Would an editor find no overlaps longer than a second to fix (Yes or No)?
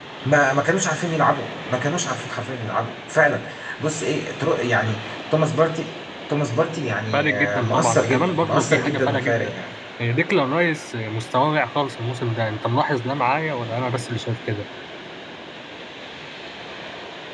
No